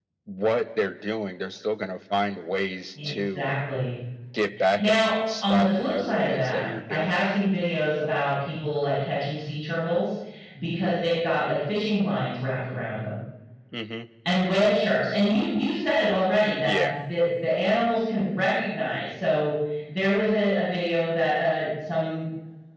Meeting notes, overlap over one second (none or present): present